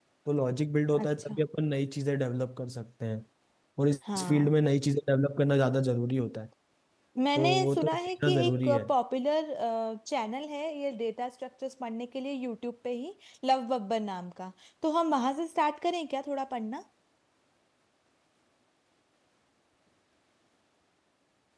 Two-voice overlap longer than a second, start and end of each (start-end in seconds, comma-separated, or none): 7.3-8.8